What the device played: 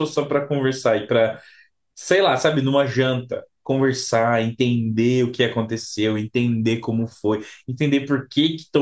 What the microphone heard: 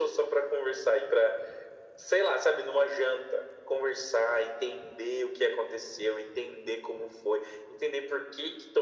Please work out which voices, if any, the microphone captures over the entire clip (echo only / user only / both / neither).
echo only